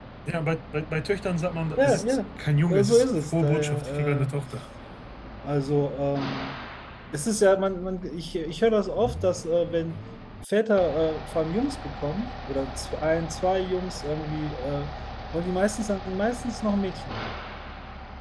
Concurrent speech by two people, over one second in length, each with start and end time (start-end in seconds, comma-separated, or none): 2.8-4.3